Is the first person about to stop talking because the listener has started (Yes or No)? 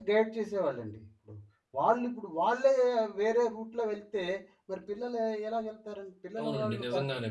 Yes